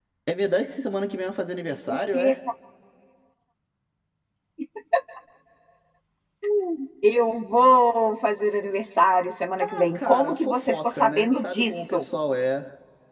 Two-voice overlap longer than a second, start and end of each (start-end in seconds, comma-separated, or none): 9.6-12.0